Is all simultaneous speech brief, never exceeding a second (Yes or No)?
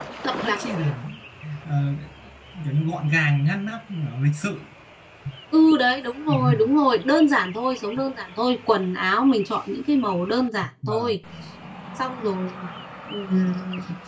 Yes